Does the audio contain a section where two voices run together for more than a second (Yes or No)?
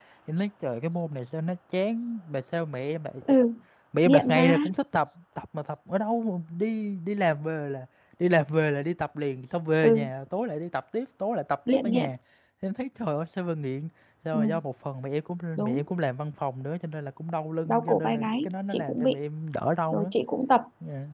Yes